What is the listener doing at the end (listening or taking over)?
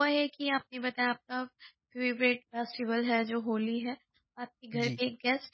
listening